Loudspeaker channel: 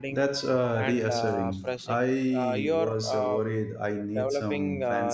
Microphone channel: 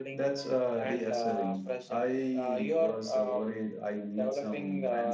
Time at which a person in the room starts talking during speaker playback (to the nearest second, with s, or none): none